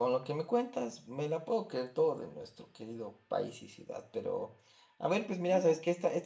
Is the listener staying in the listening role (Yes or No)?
Yes